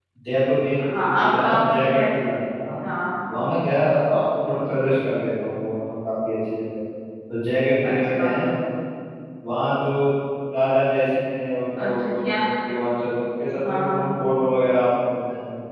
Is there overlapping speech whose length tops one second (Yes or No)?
Yes